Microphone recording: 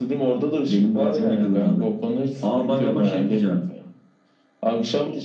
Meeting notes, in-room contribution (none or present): none